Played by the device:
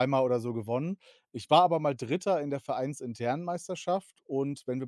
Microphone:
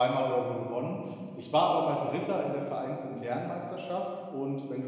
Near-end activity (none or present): none